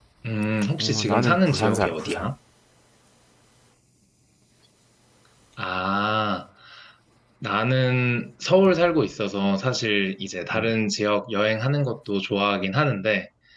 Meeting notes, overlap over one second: present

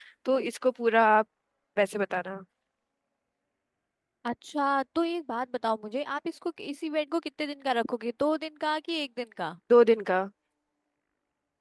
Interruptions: none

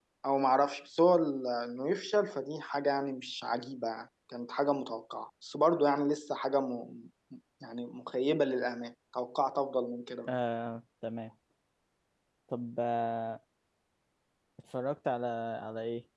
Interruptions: none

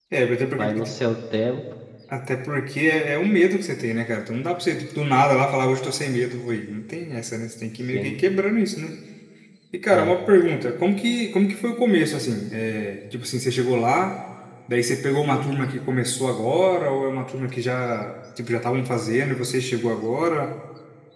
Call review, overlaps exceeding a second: none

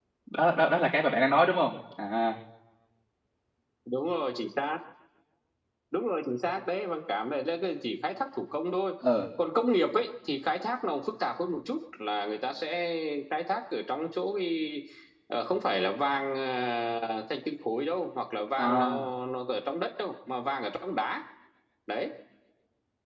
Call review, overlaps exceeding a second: none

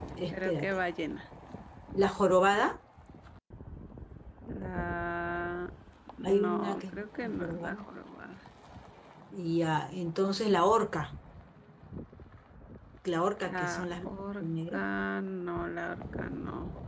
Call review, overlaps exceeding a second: present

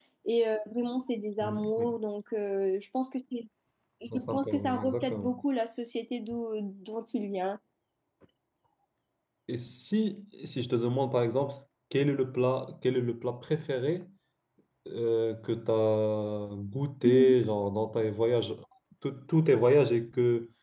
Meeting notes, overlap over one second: present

